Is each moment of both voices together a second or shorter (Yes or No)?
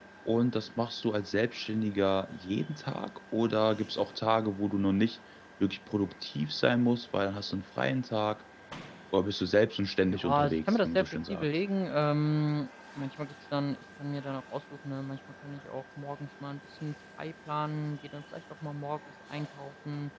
No